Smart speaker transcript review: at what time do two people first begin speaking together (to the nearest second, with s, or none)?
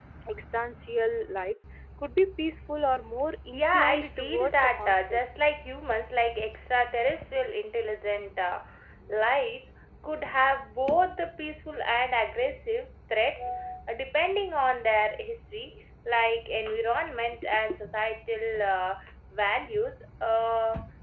4 s